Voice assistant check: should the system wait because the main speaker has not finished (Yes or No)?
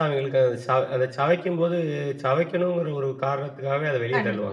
No